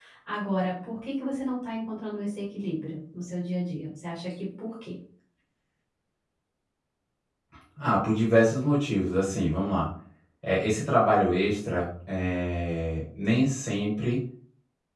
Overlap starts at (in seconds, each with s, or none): none